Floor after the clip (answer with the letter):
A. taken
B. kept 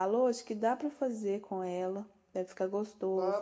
A